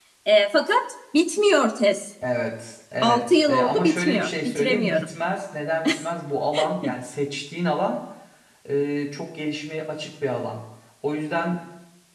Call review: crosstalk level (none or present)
present